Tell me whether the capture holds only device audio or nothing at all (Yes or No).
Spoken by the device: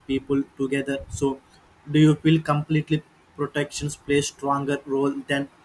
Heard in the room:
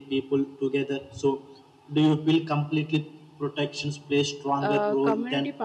No